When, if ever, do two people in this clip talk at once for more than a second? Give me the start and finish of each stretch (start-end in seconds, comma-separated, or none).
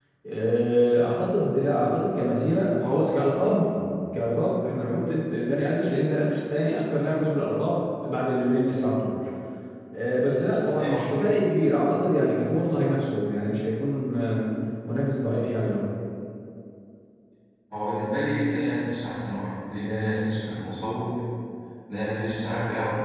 none